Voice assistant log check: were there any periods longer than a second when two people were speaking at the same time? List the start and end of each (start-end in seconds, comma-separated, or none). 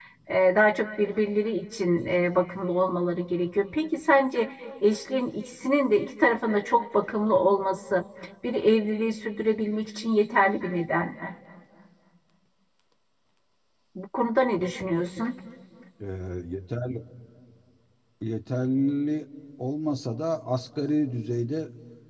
none